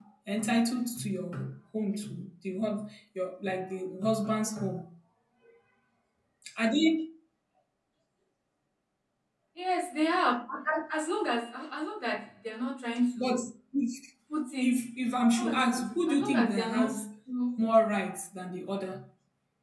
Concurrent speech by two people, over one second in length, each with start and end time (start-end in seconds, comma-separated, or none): 15.4-16.9